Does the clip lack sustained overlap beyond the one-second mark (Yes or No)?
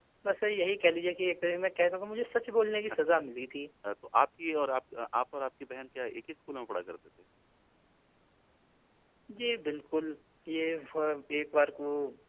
Yes